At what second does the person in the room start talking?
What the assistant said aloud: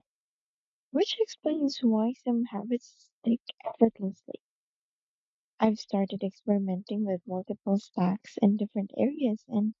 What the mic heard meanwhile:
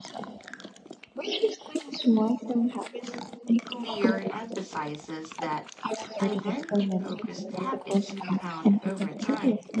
3.6 s

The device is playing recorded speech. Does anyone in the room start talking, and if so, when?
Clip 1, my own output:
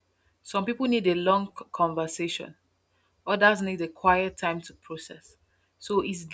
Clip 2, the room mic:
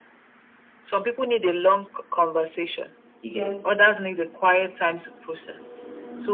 3.2 s

